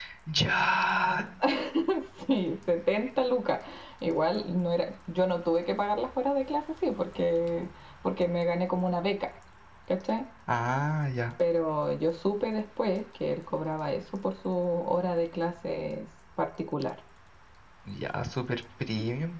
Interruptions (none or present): none